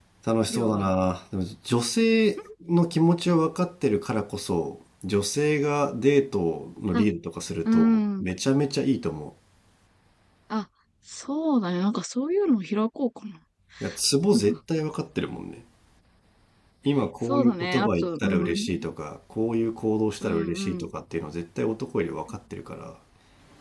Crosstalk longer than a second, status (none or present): present